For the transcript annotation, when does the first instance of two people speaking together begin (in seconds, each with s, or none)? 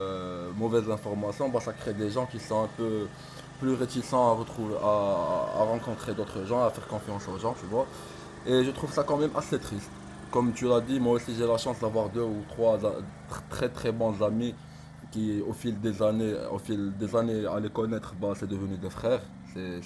none